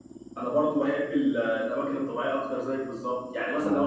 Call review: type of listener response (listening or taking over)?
listening